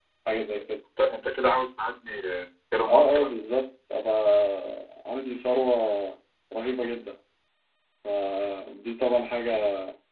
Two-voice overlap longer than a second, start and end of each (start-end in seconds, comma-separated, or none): none